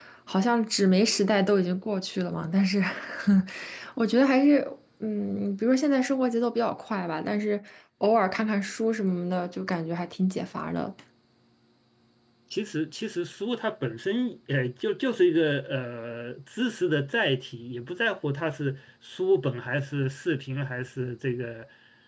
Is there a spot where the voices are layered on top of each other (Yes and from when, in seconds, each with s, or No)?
No